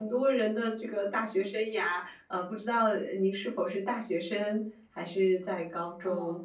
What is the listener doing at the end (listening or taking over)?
taking over